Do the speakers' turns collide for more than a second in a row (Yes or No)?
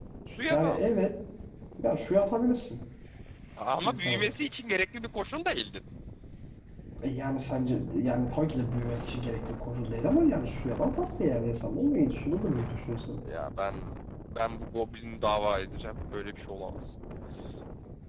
No